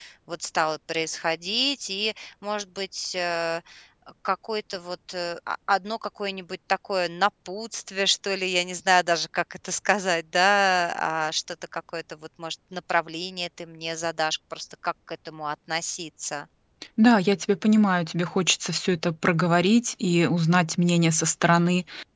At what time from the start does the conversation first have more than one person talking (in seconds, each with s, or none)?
none